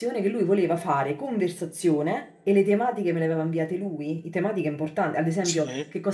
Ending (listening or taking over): listening